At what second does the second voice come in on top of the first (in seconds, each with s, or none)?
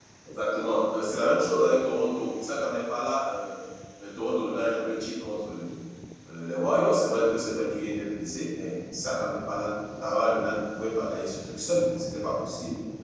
none